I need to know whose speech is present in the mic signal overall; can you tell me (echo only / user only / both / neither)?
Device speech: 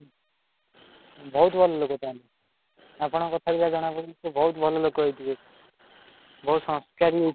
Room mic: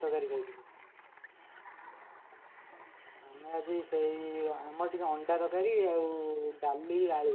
user only